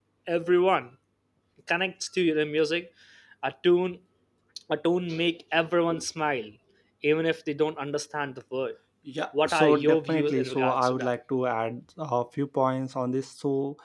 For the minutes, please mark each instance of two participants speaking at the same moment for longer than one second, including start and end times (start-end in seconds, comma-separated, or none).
9.5-11.1